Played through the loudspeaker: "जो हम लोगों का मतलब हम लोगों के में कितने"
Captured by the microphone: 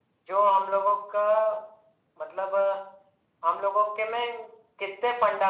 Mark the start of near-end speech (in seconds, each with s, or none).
none